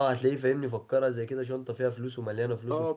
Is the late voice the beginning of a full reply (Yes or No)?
Yes